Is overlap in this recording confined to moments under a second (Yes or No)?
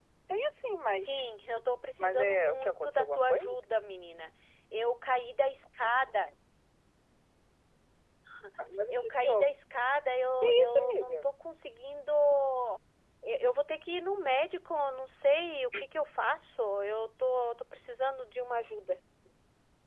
No